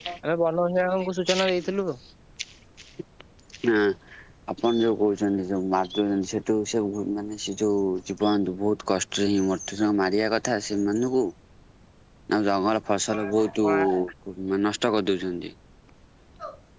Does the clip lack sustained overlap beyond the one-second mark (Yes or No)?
Yes